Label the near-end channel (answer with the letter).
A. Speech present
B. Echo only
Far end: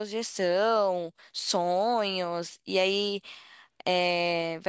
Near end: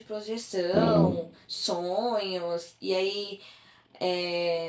A